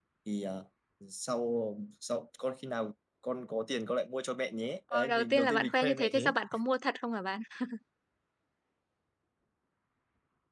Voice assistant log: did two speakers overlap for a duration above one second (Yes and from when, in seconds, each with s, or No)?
Yes, from 4.9 s